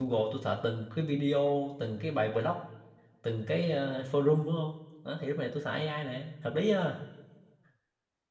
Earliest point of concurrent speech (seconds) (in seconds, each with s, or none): none